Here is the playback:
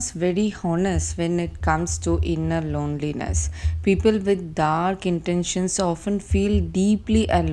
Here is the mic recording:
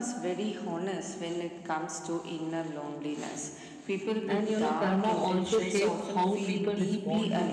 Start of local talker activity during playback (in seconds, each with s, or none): 4.3 s